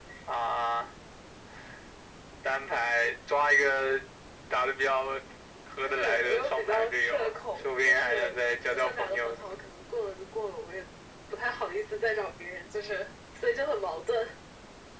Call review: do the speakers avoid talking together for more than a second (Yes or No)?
No